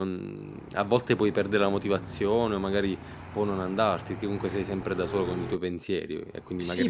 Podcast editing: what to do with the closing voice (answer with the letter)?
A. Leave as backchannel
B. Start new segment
B